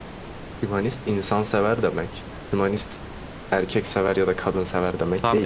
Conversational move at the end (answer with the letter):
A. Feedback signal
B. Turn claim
B